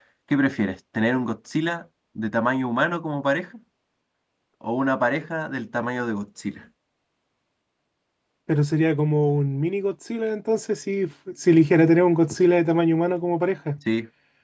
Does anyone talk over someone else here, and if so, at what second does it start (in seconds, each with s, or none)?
none